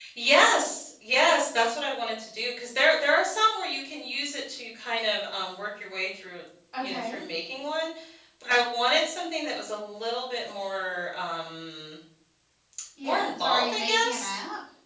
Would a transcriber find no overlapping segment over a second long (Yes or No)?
No